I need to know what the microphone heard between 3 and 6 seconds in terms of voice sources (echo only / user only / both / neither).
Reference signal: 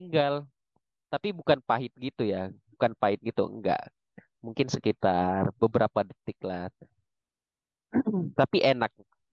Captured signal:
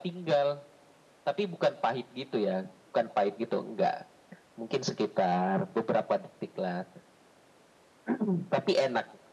echo only